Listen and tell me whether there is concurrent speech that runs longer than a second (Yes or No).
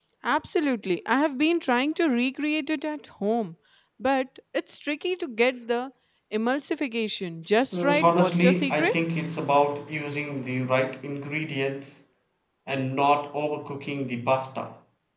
Yes